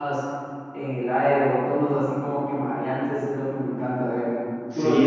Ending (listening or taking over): taking over